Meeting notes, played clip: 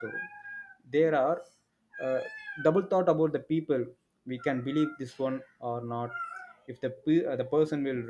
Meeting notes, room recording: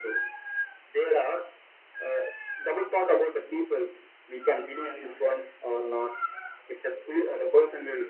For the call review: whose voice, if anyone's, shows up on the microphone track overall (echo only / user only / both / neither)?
both